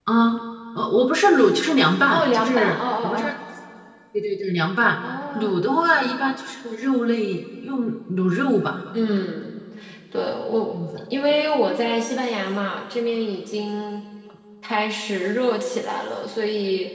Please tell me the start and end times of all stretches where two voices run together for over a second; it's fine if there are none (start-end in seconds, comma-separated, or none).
2.1-3.3